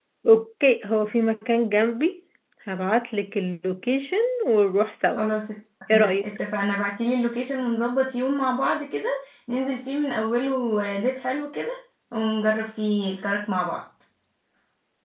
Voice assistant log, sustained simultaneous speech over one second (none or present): none